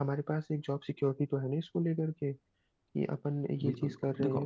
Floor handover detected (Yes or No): Yes